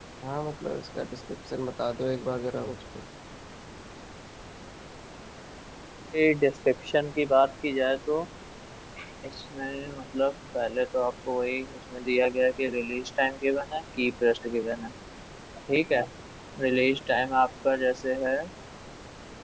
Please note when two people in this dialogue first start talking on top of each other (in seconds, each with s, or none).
none